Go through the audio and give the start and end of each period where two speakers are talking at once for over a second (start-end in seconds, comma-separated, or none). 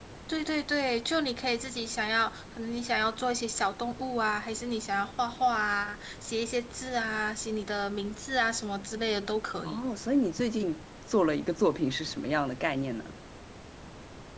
none